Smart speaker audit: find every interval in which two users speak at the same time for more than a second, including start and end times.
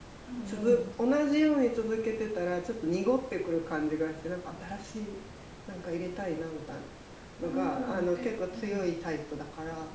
7.4-8.8

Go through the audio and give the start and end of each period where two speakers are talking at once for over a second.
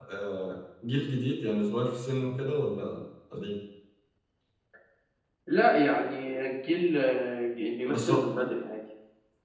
none

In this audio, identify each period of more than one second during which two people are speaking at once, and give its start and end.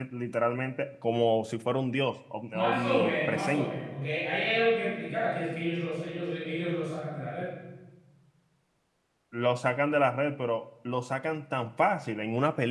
2.5-3.7

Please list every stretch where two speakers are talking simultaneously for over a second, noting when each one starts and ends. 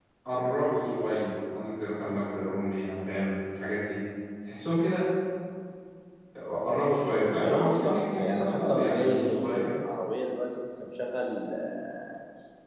7.4-9.7

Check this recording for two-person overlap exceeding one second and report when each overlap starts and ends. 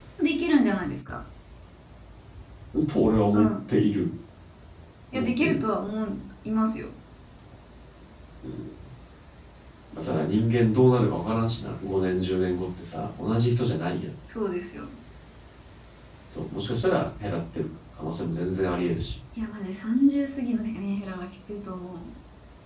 none

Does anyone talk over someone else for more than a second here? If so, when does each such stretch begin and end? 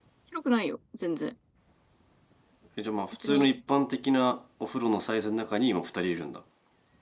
none

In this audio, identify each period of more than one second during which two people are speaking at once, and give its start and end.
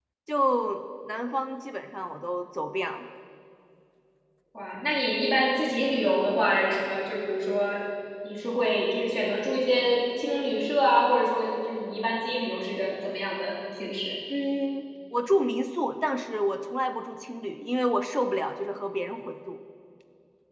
none

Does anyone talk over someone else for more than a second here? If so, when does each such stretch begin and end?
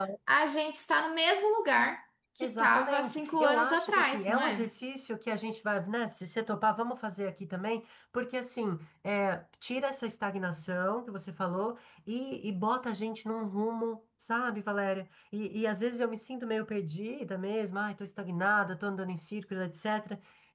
2.4-4.7

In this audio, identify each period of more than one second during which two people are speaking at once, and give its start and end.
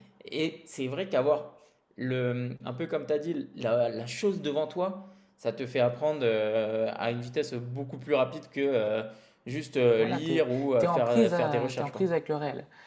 10.0-12.0

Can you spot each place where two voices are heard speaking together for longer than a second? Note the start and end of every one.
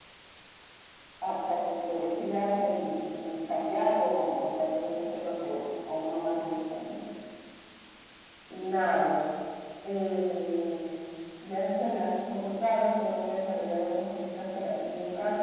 none

